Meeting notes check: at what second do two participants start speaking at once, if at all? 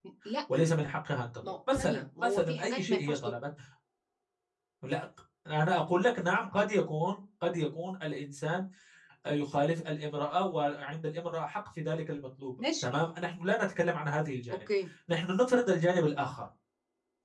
1.4 s

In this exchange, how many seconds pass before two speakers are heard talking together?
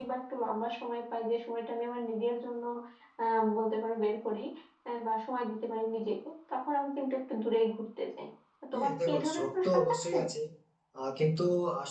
8.7 s

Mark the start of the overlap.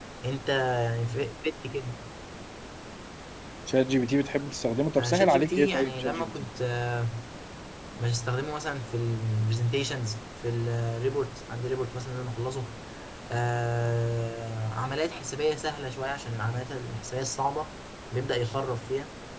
5.0 s

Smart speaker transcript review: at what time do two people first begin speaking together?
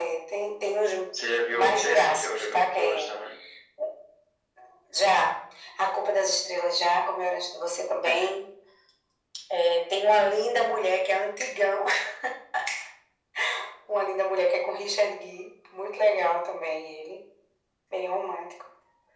1.5 s

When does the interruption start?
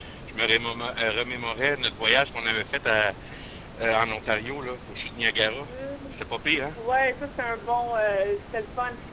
none

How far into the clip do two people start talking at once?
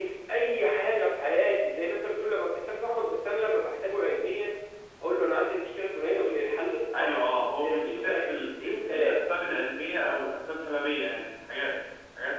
6.9 s

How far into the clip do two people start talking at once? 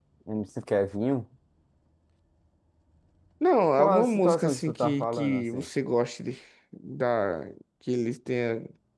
3.7 s

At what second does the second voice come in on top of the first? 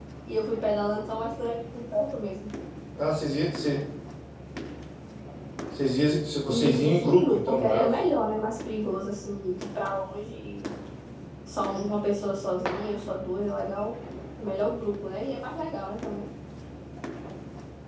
6.5 s

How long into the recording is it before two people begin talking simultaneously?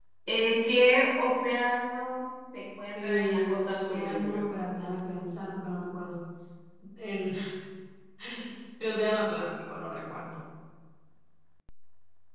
3.0 s

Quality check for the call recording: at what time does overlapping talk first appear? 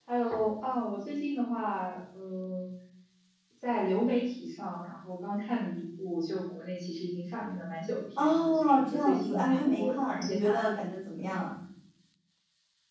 8.2 s

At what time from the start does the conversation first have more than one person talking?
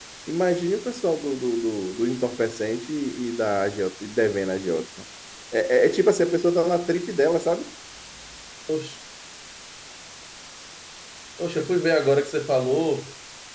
none

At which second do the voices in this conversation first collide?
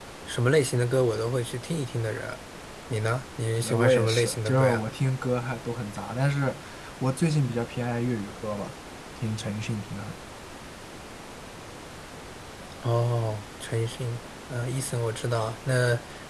3.6 s

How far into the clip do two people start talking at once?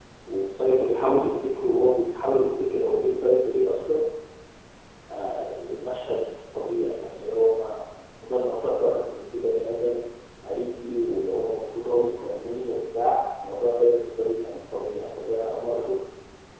none

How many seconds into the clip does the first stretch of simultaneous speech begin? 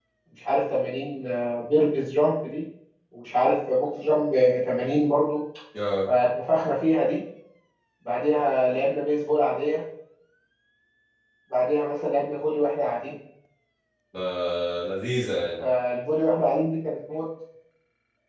none

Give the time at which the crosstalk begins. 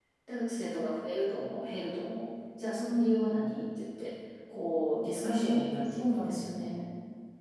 5.2 s

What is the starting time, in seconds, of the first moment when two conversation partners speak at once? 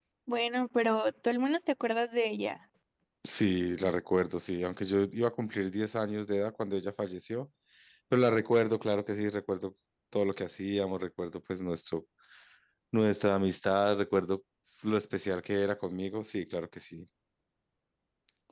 none

